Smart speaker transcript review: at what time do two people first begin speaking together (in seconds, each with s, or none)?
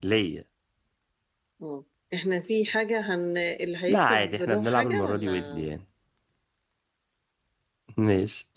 3.9 s